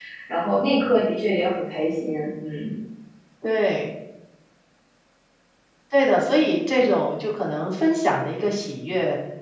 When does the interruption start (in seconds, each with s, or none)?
none